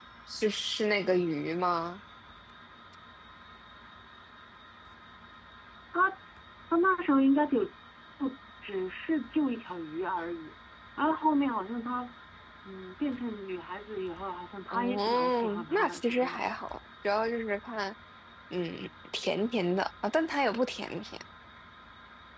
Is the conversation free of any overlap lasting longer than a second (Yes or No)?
No